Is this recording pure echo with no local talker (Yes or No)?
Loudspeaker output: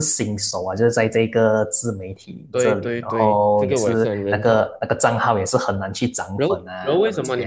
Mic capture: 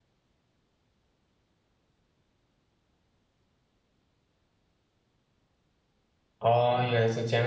No